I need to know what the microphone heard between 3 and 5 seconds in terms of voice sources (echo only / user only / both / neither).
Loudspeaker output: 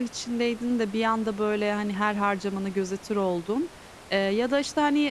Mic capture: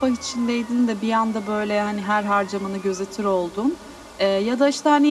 echo only